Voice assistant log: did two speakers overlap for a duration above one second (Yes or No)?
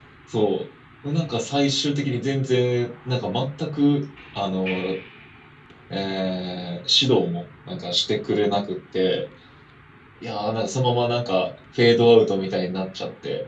No